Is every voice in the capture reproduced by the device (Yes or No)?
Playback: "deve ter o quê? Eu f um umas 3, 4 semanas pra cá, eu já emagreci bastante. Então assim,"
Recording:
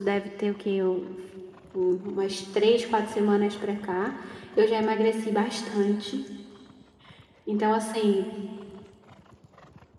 Yes